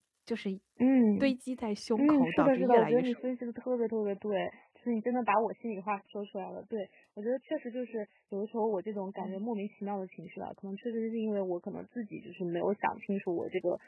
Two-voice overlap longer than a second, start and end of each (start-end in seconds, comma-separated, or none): 2.0-3.2